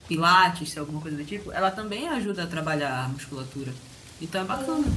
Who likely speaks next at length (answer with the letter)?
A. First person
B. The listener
B